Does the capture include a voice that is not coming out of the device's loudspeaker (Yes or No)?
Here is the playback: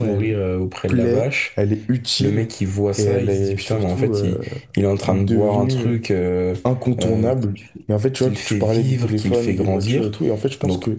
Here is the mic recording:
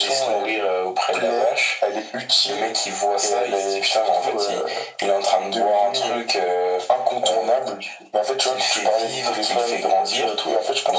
No